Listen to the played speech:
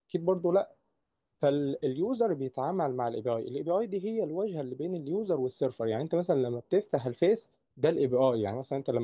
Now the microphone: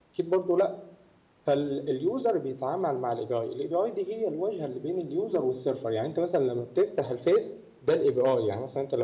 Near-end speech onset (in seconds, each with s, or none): none